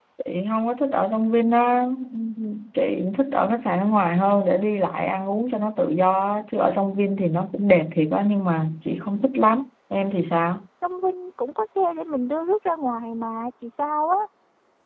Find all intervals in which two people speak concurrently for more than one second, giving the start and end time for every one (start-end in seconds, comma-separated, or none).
none